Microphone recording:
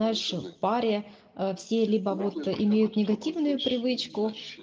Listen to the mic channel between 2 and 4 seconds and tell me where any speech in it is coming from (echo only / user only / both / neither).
both